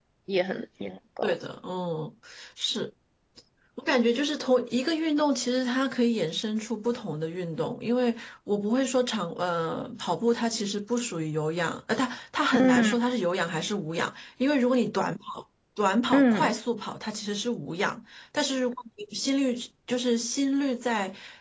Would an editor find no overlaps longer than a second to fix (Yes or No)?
Yes